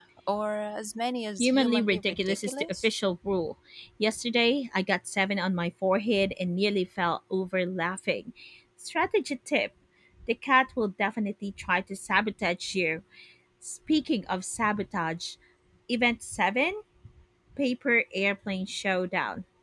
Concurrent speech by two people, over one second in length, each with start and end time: 1.4-2.9

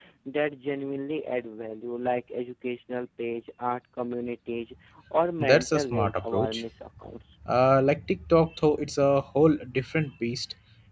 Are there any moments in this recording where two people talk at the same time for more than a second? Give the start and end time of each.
5.4-6.6

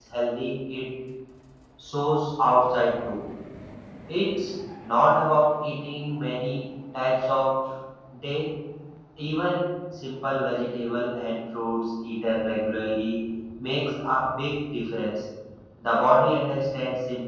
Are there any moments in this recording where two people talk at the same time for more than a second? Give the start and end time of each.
none

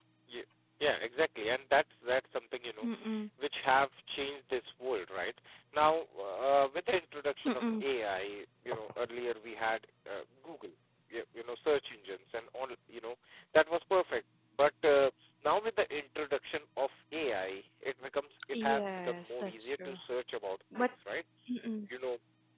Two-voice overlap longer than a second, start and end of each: 18.6-20.0

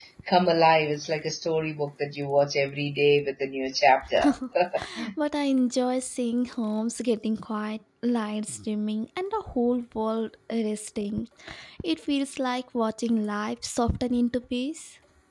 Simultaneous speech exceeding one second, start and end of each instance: none

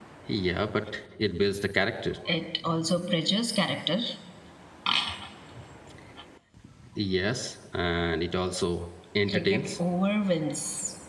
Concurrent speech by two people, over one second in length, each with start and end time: none

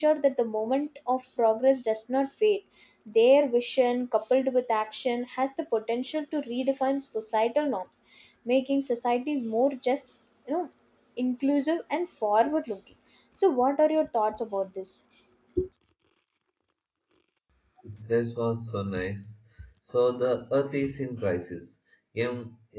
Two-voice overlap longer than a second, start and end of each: none

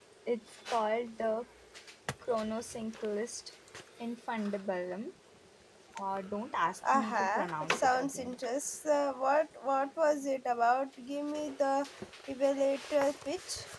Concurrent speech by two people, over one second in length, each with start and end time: 6.9-8.3

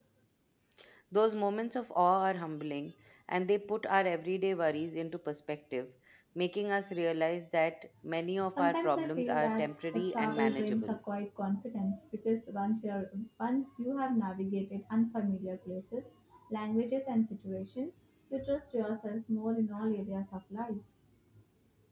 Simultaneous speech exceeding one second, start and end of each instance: 8.6-11.0

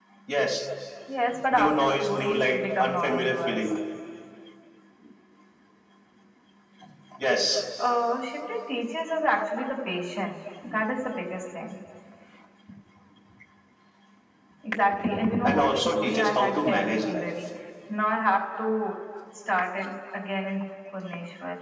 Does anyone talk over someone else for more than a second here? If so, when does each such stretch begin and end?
1.5-3.7, 15.4-17.3

